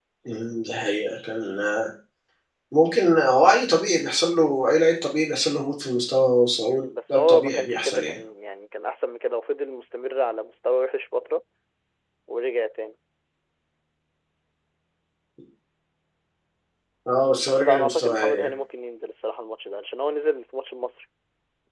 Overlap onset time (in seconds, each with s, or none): 6.7 s